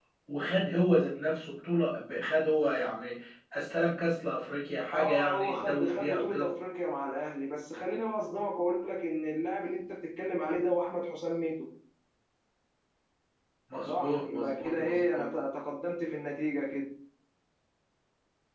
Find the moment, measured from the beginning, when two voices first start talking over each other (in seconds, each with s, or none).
4.9 s